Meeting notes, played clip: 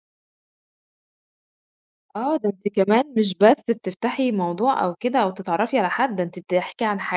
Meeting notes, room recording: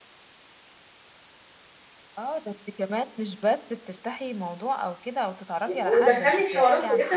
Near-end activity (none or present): present